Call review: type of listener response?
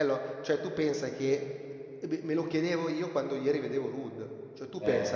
listening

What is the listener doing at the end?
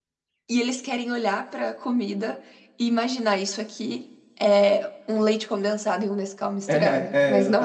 taking over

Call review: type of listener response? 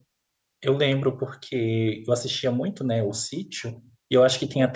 listening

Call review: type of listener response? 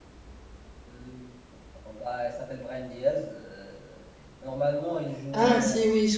taking over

